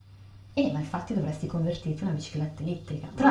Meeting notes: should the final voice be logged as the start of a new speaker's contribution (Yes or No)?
Yes